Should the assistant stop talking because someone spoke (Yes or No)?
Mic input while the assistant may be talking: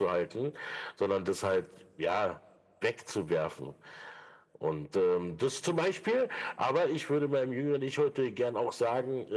No